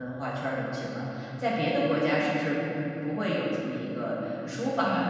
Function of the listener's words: taking over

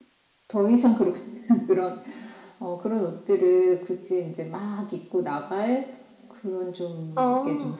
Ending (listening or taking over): listening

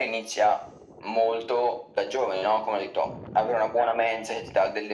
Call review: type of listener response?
listening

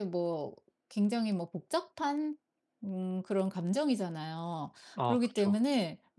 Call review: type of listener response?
listening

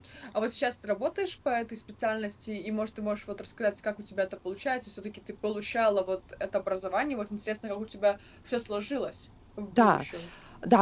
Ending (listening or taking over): taking over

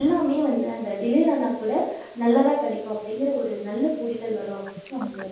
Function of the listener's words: taking over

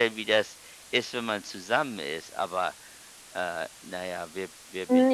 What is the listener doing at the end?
taking over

